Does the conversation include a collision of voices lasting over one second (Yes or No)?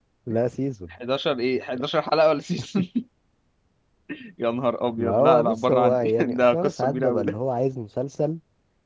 Yes